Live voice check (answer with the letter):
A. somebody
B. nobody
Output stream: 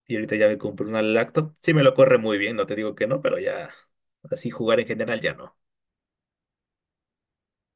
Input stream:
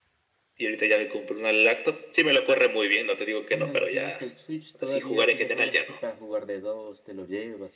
A